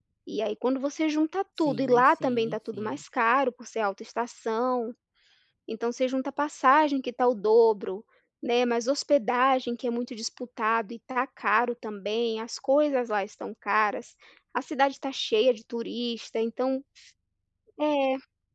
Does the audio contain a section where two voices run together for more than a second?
Yes, from 1.7 s

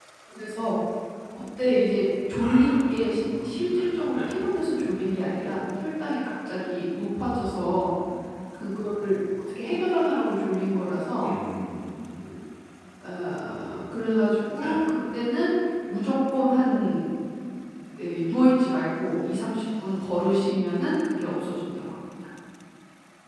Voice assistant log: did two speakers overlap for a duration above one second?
Yes, from 2.4 s

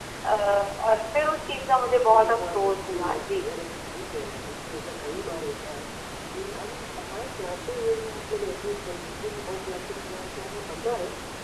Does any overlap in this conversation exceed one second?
Yes, from 1.9 s

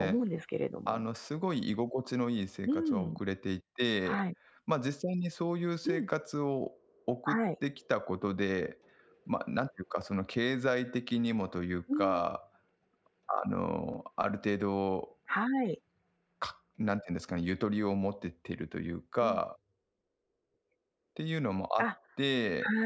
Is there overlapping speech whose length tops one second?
No

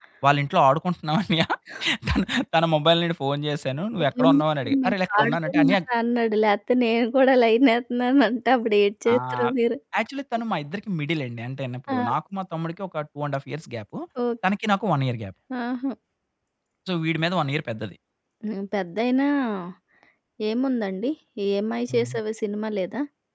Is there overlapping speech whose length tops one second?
Yes, from 4.0 s

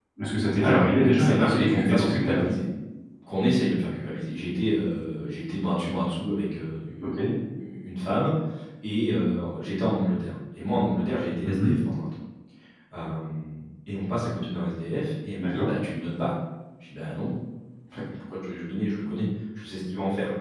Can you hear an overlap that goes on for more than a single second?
Yes, from 0.6 s

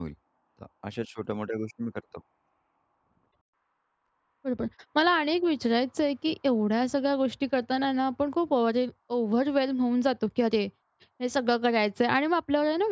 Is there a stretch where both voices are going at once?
No

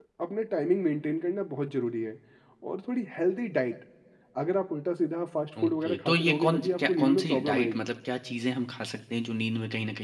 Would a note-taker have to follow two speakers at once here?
Yes, from 5.6 s

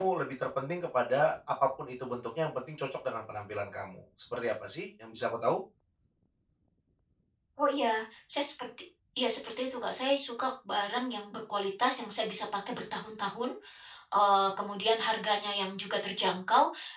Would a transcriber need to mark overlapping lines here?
No

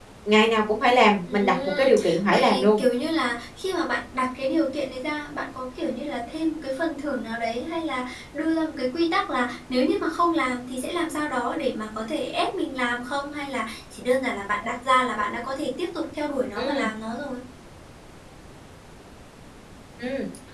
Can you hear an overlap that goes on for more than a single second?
Yes, from 1.3 s

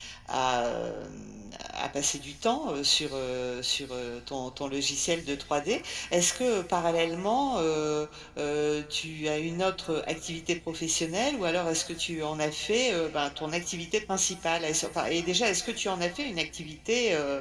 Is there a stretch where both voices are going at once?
No

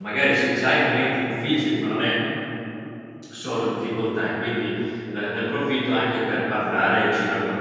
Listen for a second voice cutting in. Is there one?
No

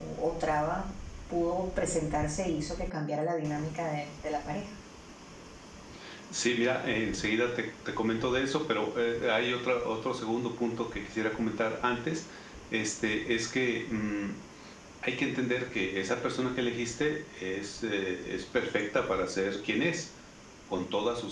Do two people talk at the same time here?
No

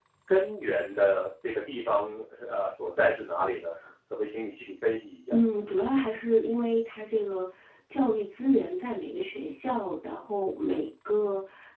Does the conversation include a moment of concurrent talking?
No

